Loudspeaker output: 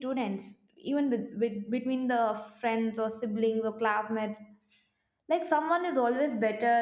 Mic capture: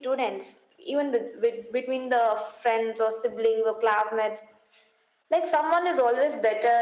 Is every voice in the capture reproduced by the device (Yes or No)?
Yes